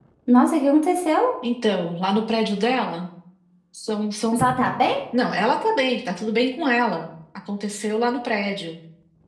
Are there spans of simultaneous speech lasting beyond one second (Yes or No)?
No